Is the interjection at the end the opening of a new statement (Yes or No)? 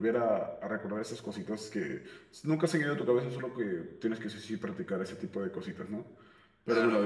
No